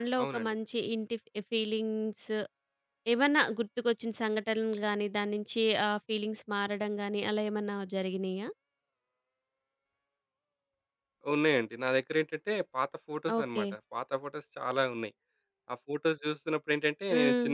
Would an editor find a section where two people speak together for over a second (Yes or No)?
No